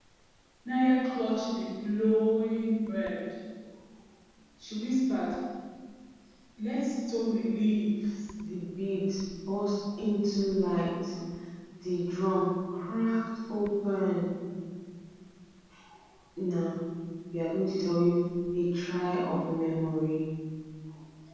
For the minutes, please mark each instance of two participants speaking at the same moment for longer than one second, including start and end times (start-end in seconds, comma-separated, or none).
none